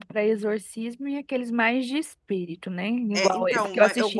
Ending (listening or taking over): taking over